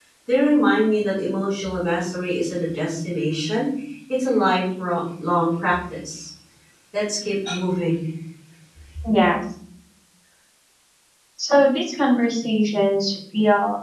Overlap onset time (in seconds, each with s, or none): none